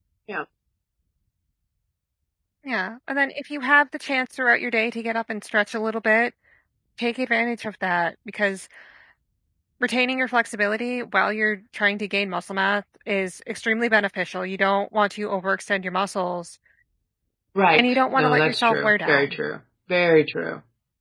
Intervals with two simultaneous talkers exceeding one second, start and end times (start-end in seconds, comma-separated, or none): 17.7-19.4